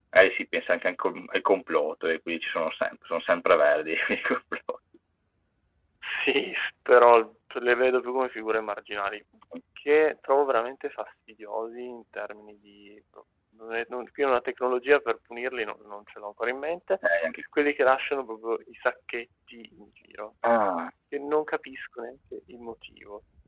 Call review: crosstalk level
none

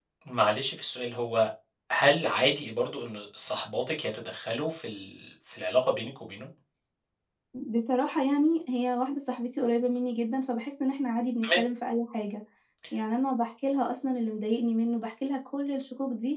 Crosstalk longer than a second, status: none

